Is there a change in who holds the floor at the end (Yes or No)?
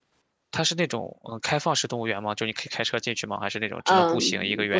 Yes